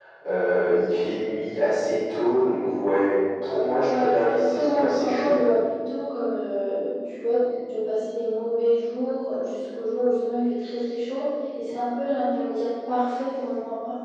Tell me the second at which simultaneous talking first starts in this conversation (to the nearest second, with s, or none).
4 s